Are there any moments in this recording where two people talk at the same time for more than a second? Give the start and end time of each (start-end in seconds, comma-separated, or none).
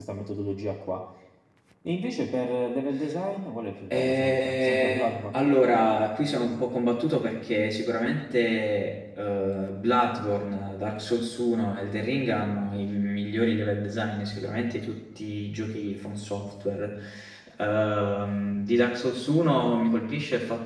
3.9-5.5